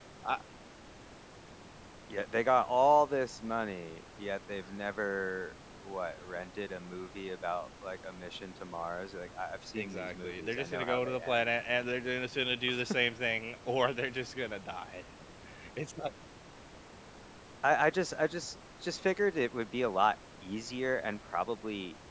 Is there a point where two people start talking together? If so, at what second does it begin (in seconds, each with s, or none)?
9.8 s